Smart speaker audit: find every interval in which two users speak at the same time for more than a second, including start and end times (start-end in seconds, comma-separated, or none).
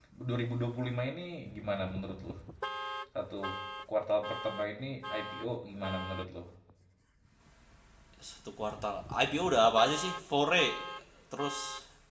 none